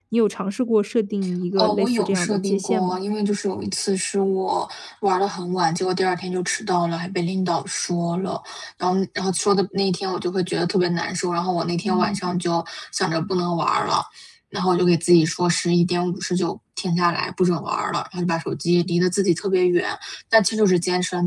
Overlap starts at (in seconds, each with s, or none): 1.6 s